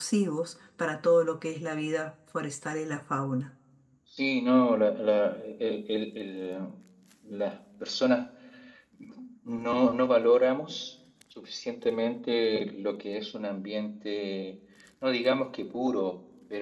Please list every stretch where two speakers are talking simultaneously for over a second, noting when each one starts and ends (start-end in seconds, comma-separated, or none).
none